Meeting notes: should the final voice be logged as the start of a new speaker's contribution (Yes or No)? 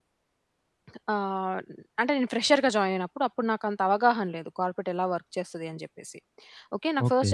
No